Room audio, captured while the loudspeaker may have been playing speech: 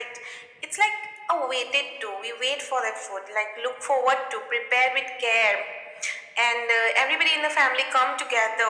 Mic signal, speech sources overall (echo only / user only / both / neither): echo only